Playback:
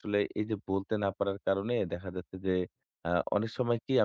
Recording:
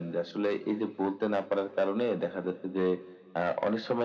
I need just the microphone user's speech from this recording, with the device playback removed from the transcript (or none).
none